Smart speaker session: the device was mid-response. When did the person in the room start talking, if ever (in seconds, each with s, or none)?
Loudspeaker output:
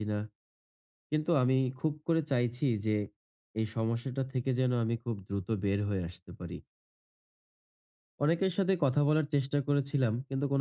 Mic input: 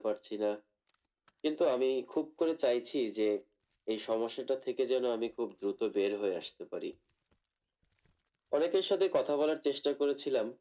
none